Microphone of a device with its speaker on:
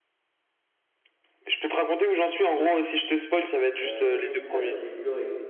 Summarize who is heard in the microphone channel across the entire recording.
both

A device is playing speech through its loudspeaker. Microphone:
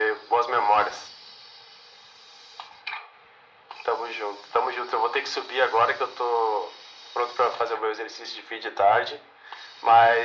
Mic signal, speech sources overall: echo only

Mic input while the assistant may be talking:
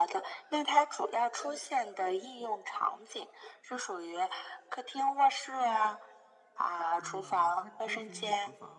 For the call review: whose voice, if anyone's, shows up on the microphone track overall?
both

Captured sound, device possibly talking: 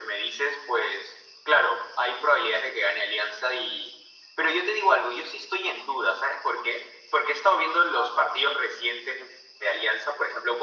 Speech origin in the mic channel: echo only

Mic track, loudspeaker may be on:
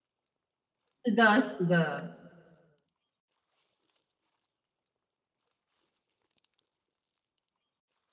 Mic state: user only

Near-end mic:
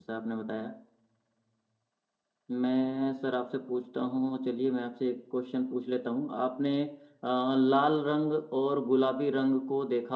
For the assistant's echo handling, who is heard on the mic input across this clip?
user only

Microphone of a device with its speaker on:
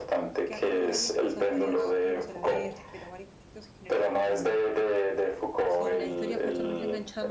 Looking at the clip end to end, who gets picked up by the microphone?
both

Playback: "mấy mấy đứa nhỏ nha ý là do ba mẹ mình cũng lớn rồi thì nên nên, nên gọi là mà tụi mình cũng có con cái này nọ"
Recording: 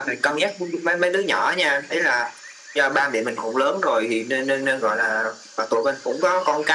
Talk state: echo only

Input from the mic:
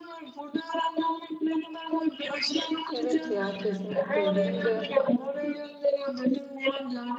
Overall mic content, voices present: both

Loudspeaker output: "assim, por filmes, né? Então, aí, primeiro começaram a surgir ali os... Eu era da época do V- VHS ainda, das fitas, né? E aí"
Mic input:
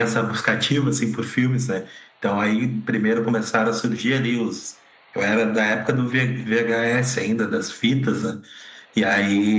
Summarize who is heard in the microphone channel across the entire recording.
echo only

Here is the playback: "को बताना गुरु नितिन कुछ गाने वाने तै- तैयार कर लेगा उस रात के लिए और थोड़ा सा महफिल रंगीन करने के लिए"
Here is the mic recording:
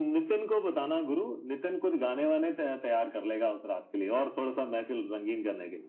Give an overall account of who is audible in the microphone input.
echo only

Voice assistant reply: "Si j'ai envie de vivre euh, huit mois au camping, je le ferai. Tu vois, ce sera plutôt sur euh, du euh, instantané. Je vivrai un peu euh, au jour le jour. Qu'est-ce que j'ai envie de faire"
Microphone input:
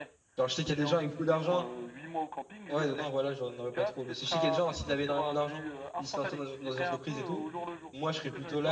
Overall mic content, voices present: both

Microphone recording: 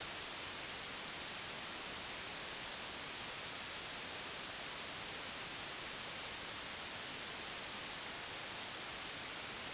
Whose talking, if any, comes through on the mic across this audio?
neither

